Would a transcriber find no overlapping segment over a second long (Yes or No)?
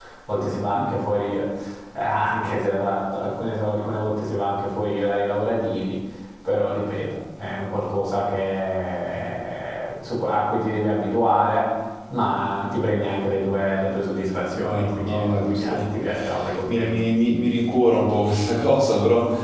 No